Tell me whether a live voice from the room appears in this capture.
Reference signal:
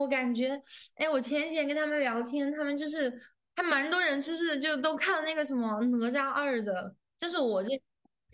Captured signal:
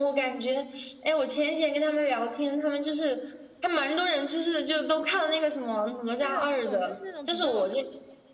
Yes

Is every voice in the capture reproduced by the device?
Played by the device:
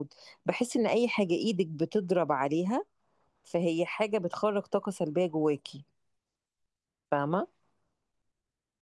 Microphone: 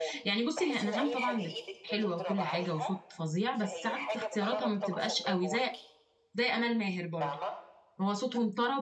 No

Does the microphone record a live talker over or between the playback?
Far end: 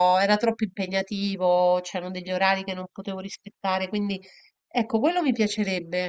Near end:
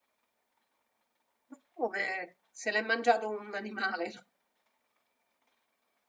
Yes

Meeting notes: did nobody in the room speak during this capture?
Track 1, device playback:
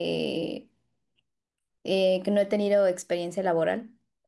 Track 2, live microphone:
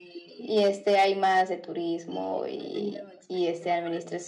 No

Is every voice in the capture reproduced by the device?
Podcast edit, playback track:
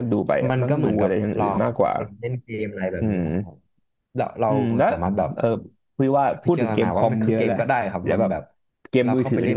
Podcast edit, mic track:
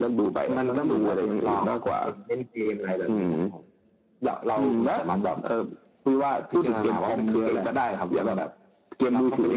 Yes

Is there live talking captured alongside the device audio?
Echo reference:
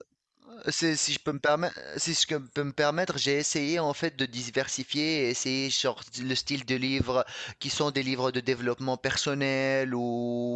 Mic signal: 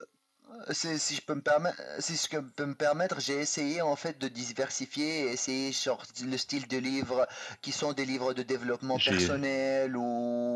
Yes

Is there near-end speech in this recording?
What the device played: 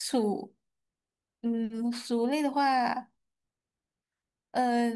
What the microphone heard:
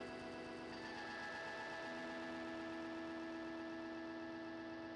No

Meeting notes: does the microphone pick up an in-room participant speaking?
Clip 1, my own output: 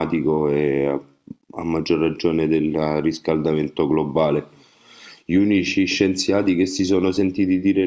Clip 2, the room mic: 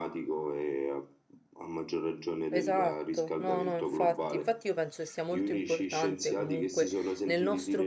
Yes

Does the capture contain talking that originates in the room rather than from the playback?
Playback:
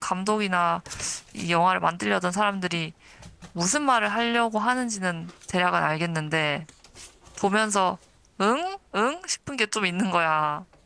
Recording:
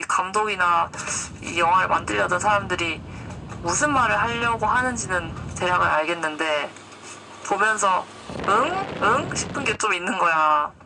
No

